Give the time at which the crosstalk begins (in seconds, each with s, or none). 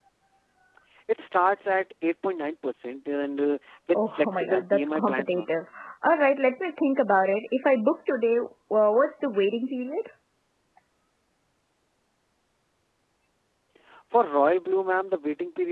3.9 s